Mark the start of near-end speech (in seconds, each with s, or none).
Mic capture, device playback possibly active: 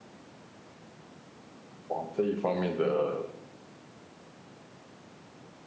1.9 s